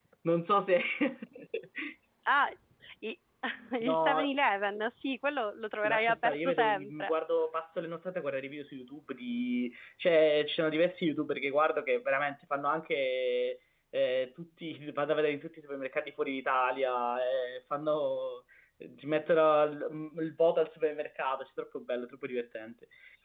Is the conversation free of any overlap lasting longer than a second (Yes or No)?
No